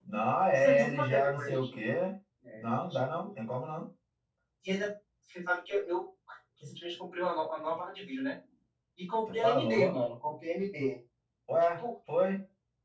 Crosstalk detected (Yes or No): Yes